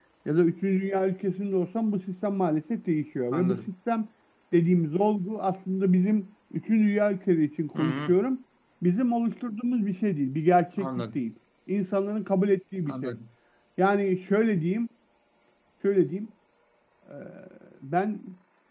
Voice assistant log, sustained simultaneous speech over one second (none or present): none